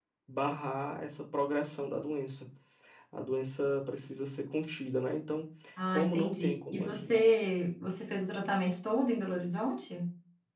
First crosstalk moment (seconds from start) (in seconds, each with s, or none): 5.9 s